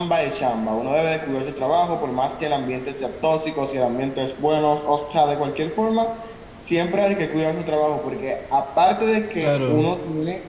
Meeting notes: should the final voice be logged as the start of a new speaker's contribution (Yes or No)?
No